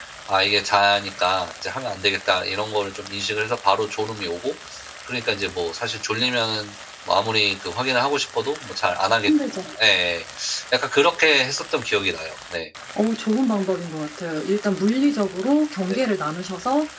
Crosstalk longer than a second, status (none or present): none